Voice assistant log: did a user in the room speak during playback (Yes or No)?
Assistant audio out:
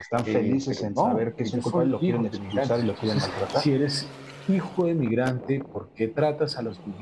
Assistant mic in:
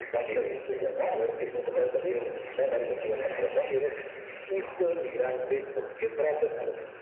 No